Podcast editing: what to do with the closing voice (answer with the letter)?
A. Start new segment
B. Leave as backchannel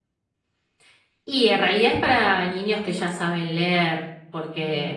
B